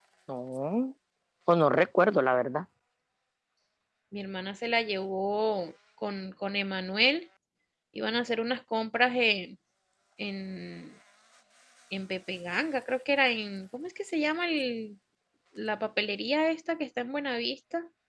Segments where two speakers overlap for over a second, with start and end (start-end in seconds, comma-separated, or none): none